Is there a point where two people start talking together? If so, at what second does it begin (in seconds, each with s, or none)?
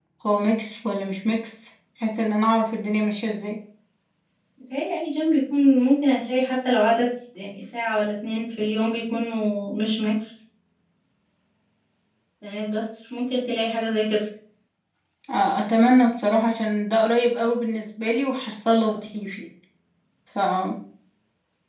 none